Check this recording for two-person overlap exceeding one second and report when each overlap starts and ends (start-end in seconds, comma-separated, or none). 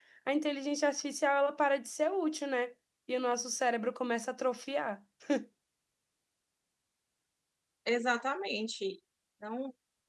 none